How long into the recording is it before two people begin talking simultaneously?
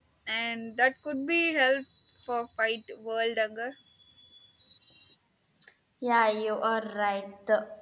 none

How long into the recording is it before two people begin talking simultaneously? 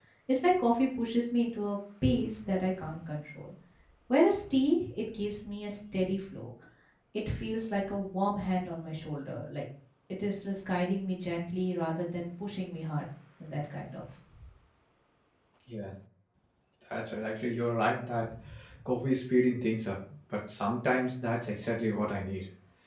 none

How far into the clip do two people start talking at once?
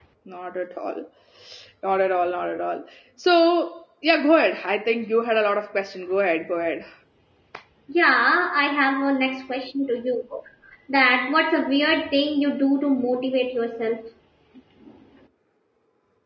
none

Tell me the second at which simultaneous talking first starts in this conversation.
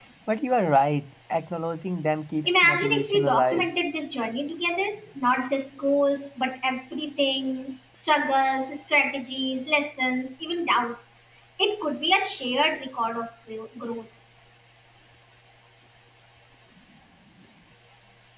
2.5 s

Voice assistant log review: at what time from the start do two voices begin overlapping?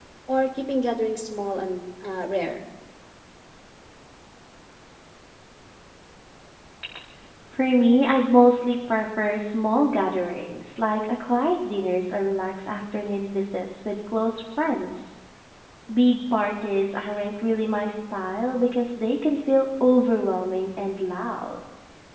none

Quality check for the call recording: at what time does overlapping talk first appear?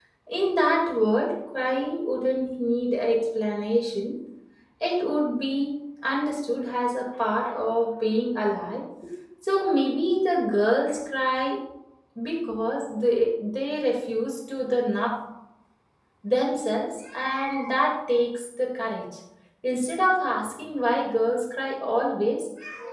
none

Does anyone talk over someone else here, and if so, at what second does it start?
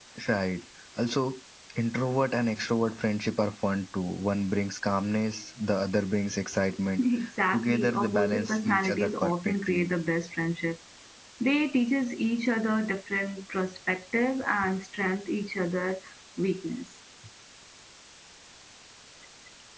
7.5 s

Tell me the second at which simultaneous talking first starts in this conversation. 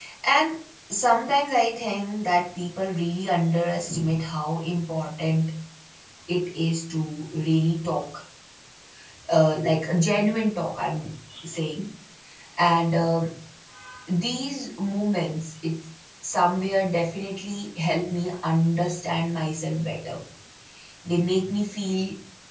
none

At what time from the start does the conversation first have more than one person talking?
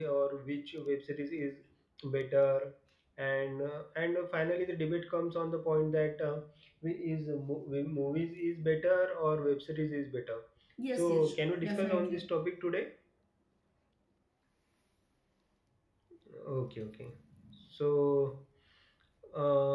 10.9 s

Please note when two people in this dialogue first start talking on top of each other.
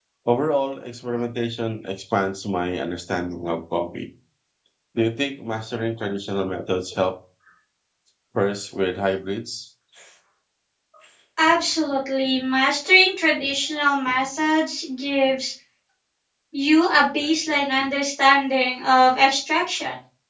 none

